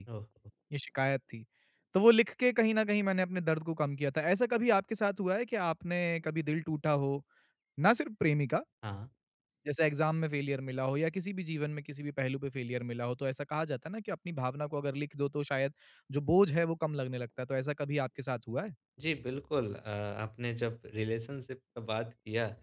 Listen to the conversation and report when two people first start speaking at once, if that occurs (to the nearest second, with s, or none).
none